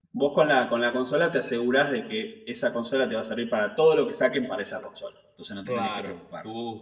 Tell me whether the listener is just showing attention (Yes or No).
No